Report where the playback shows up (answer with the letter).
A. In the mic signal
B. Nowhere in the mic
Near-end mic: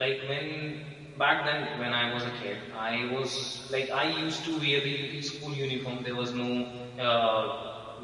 B